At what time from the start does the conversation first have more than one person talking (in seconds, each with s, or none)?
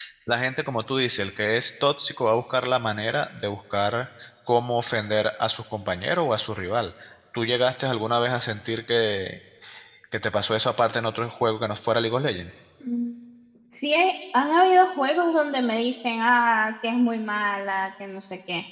none